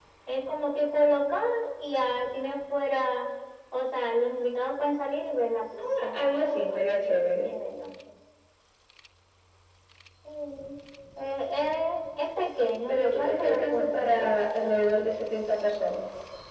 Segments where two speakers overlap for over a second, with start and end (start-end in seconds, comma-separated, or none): 6.0-7.5, 12.9-14.3